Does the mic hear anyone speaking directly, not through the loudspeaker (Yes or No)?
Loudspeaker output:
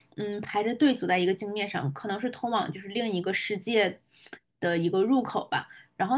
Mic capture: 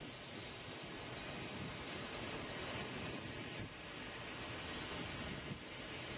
No